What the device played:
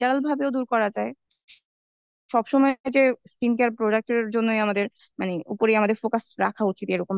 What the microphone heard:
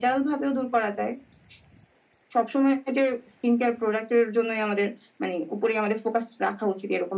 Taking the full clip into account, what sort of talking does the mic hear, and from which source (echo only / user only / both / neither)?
echo only